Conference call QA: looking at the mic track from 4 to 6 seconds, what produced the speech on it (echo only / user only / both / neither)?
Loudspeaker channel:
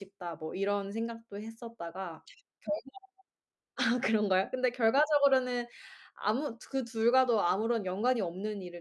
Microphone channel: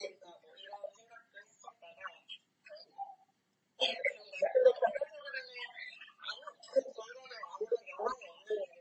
echo only